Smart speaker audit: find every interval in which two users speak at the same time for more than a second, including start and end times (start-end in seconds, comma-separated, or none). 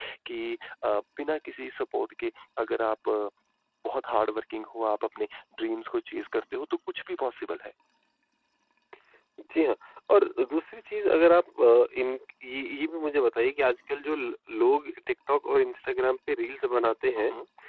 none